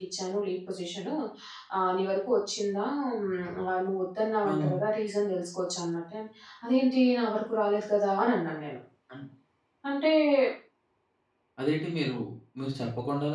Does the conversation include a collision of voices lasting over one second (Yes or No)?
No